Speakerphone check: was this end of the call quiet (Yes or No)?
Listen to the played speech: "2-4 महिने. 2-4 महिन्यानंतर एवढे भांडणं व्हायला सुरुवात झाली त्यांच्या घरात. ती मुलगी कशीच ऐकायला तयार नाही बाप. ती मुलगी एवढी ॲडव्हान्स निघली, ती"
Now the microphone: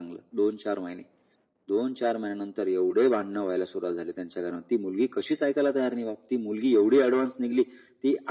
Yes